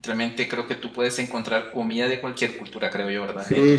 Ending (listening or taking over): taking over